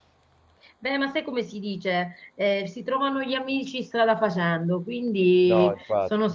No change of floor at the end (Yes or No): Yes